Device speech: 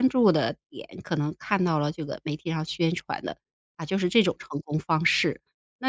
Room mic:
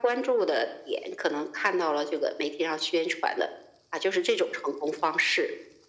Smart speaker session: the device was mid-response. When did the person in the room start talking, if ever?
none

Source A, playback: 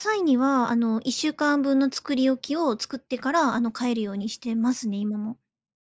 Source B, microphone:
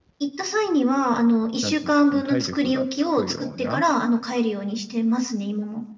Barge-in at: 1.6 s

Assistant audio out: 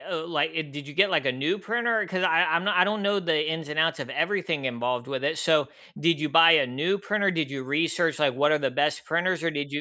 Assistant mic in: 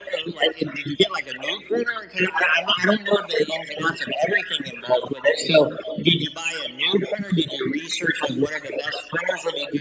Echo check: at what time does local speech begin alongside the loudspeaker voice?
none

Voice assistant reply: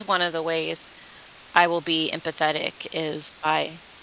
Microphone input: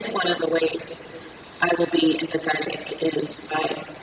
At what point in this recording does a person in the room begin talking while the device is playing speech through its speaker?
none

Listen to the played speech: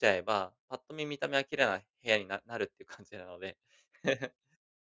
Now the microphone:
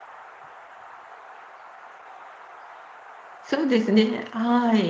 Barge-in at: 3.4 s

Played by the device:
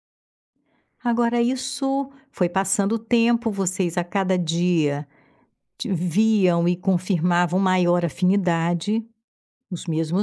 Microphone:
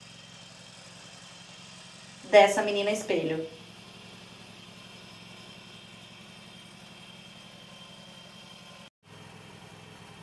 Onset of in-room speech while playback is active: 2.2 s

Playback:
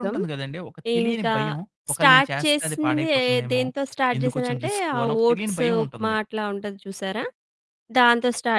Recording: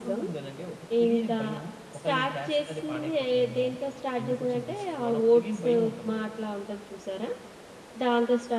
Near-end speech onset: none

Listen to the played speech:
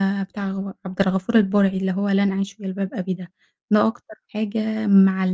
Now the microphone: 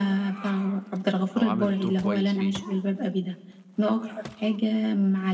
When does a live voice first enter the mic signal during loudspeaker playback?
1.4 s

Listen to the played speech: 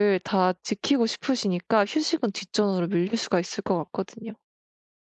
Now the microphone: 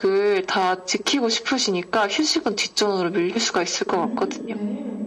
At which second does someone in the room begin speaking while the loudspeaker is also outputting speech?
3.9 s

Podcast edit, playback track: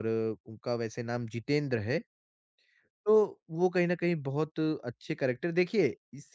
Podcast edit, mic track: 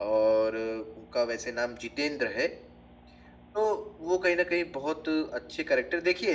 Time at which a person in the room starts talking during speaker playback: none

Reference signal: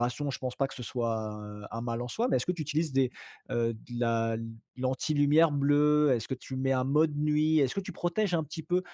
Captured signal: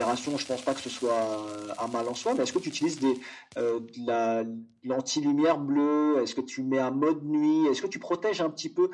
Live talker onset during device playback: none

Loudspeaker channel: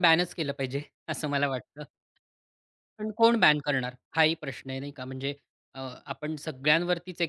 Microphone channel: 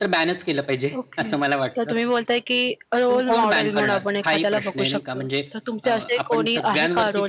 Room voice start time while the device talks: 1.0 s

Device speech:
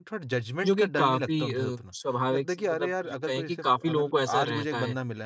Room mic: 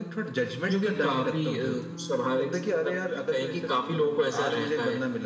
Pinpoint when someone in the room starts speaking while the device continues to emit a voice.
none

